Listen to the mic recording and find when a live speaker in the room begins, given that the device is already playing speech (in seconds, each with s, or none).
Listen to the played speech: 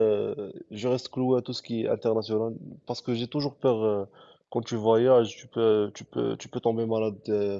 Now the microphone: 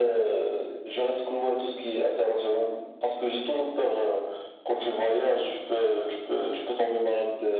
none